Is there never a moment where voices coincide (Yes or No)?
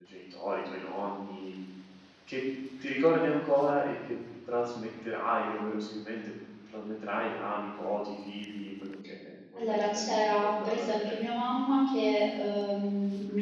No